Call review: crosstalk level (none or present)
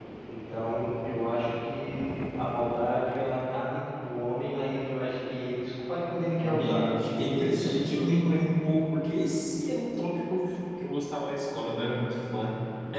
present